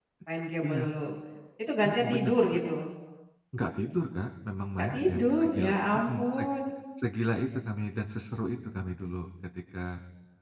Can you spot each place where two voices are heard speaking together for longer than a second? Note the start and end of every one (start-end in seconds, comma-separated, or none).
4.8-6.4